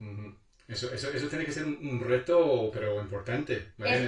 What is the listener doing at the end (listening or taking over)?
taking over